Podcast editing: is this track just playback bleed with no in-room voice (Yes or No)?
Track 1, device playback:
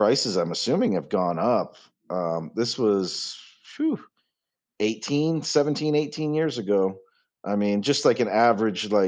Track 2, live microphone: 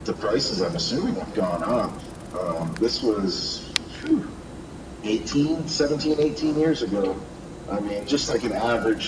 Yes